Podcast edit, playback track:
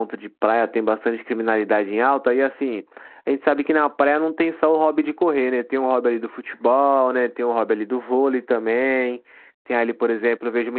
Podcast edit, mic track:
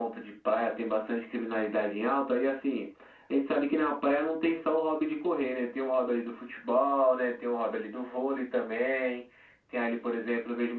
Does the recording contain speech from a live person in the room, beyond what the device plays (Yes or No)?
No